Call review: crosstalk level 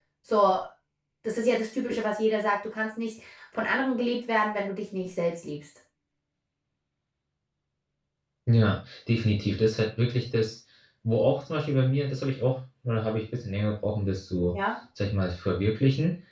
none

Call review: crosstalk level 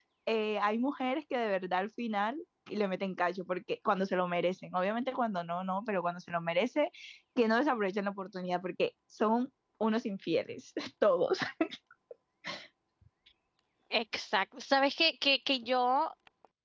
none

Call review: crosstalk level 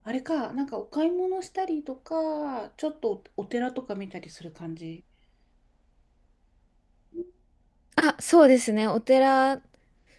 none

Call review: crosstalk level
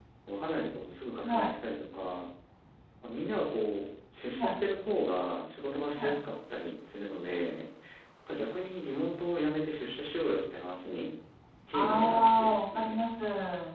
present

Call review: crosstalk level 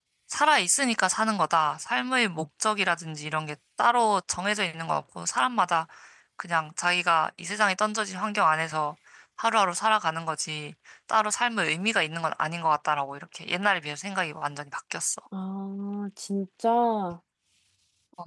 none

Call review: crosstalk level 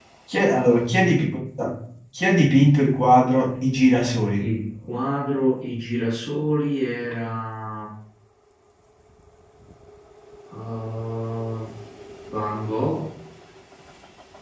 none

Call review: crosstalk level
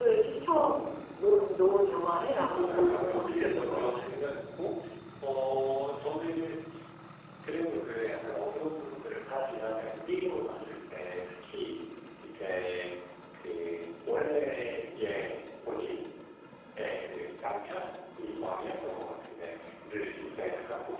present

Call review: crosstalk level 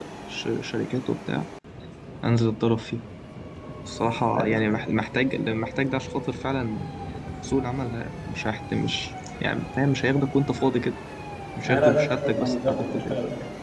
present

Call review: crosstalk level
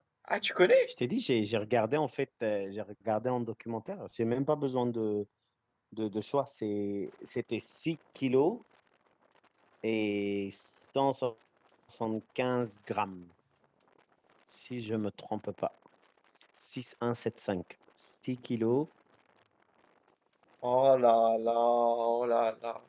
none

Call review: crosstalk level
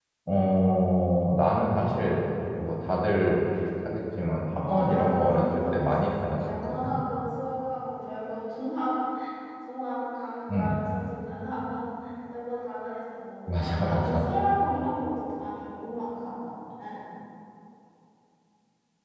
present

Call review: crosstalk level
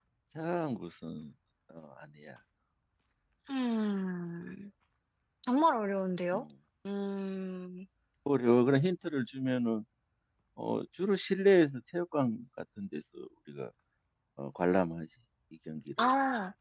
none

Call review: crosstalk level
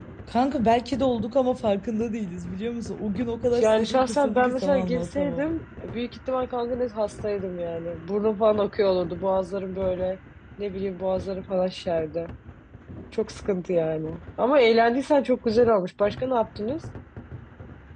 present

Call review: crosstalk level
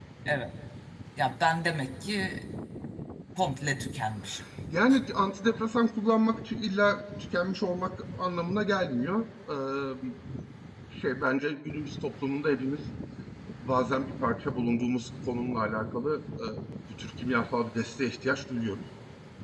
none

